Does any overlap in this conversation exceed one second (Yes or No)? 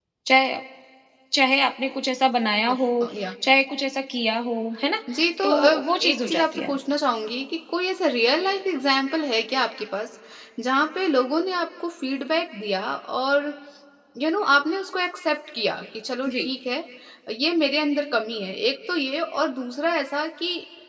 Yes